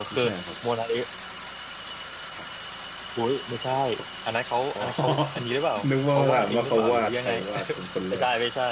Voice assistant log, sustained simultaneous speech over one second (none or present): present